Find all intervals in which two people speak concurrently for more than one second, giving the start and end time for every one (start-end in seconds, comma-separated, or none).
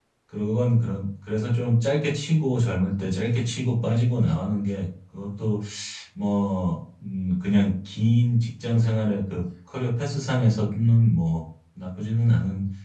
none